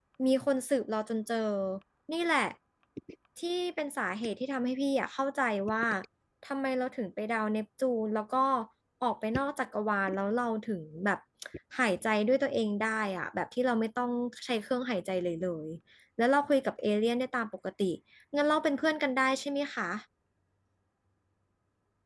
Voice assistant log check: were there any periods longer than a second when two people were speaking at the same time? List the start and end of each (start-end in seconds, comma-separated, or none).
none